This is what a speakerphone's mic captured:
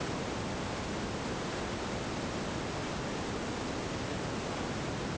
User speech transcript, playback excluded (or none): none